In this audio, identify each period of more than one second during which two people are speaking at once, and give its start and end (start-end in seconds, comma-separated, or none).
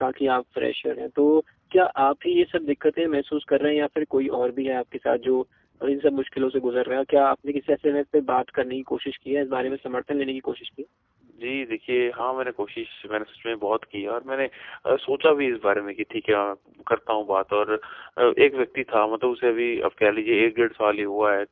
none